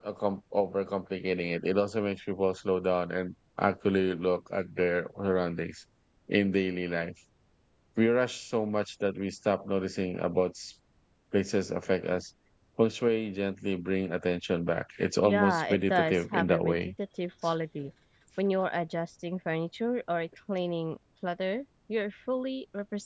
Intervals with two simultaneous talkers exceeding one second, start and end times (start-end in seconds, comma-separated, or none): 15.2-16.9